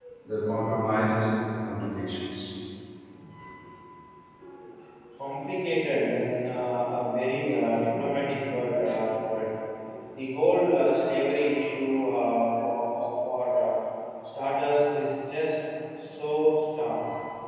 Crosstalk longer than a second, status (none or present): none